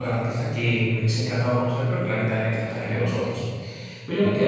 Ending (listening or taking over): listening